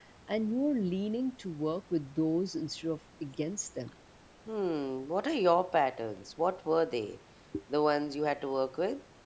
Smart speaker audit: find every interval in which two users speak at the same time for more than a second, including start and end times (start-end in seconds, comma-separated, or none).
none